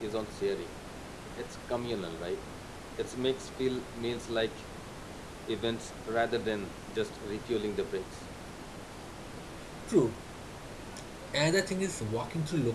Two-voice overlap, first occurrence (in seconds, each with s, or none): none